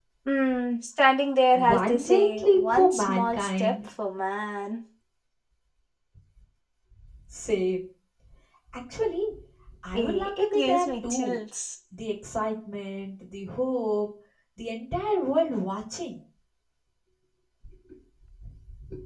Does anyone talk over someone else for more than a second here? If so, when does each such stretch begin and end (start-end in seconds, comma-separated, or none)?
1.6-3.7, 9.9-11.4